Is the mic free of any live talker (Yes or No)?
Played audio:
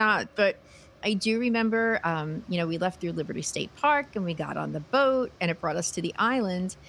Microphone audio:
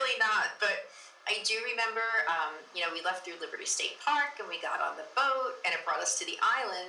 Yes